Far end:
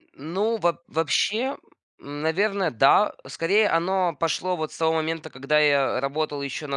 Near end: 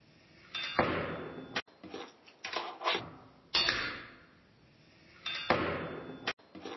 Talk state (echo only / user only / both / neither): neither